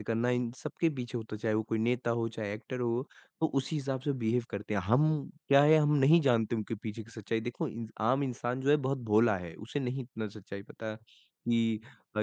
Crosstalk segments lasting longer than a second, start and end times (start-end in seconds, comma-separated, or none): none